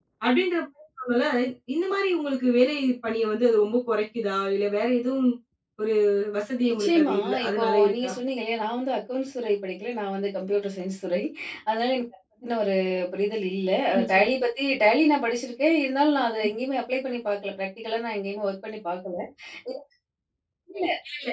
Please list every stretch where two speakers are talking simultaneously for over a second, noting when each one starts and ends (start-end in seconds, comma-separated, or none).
6.7-8.1